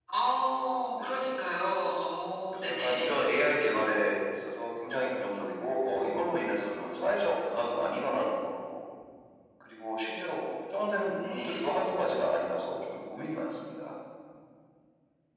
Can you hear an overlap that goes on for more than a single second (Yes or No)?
No